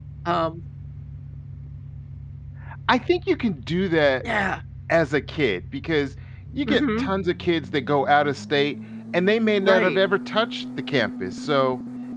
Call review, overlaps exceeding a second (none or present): none